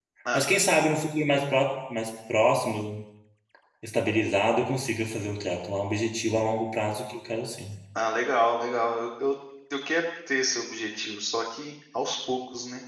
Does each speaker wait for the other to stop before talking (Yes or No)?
Yes